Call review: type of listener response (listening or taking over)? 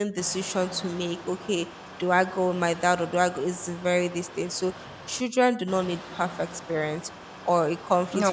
listening